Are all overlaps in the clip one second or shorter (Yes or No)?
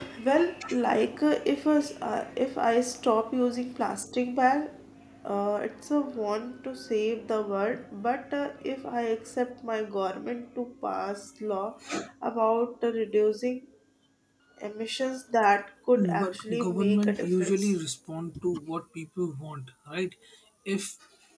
No